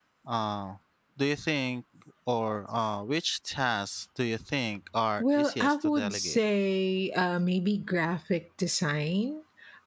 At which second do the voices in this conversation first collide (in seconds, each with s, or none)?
5.2 s